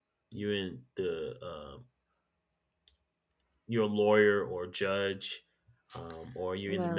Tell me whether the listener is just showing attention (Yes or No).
Yes